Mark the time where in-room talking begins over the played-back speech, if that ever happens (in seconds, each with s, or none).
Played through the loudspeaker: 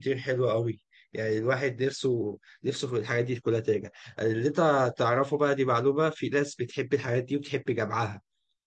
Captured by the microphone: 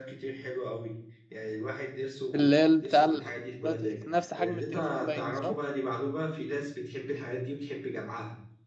2.3 s